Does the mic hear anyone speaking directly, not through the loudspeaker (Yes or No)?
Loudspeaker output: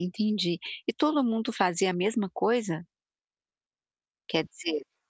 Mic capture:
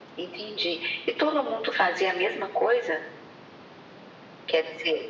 No